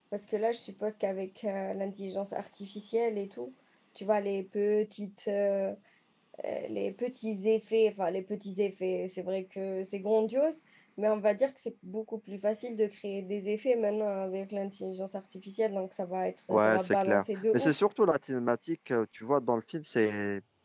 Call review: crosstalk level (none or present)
present